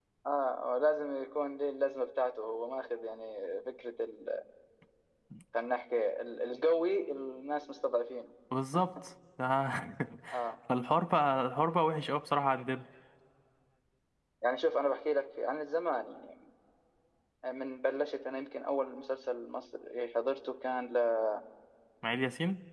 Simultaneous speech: No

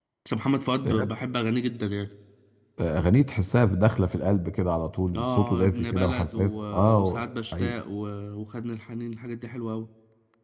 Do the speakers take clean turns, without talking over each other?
No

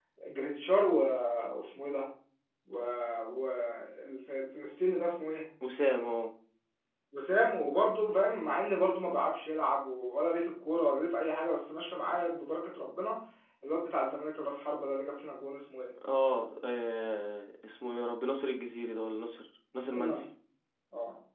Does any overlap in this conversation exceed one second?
No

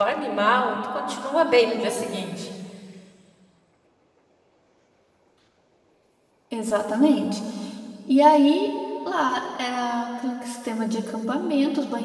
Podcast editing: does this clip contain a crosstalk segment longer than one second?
No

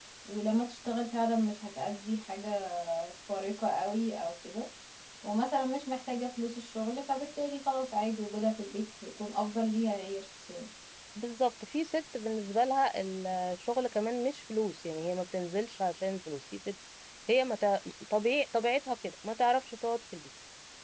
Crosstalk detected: No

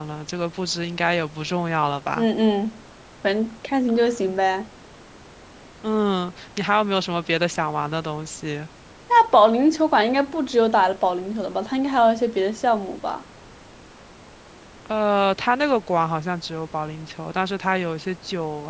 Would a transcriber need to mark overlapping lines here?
No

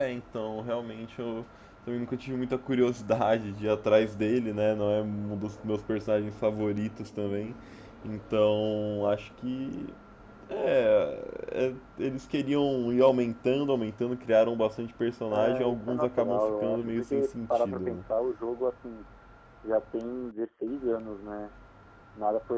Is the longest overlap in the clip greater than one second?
Yes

